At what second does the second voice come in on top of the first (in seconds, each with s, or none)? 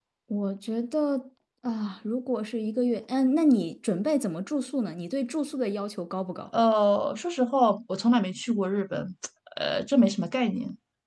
none